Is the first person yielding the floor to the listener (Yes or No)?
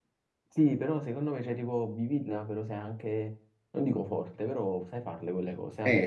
Yes